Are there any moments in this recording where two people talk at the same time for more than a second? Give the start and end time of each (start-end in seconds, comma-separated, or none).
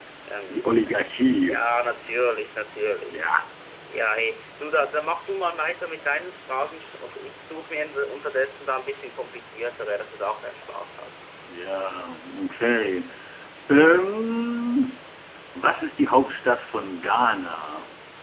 none